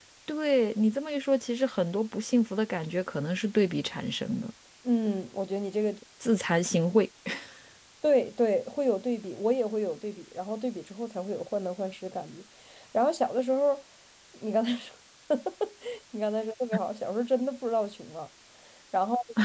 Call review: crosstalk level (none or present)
none